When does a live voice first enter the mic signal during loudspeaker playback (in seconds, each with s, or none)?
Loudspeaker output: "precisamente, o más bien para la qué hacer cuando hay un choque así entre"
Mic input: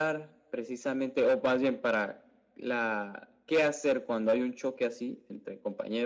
none